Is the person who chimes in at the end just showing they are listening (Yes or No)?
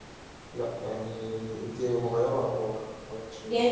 No